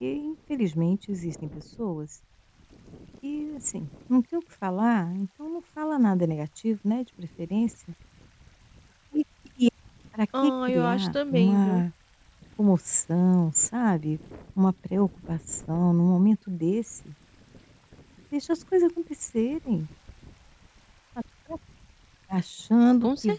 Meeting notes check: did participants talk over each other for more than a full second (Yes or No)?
Yes